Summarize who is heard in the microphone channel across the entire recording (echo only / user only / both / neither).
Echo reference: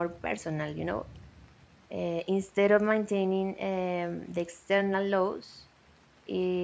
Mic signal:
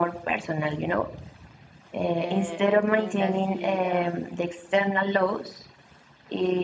both